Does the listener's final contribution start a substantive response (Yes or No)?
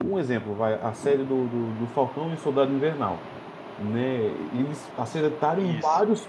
No